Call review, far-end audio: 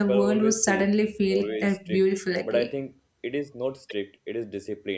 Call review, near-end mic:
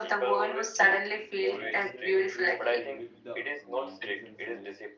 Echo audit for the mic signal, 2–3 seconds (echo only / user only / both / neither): both